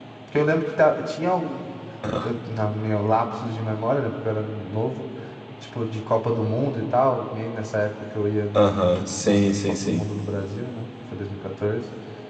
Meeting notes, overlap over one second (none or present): present